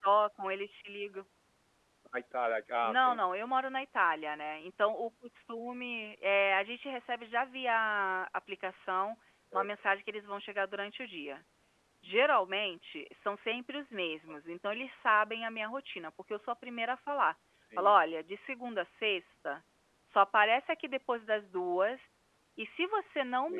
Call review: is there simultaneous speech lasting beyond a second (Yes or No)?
No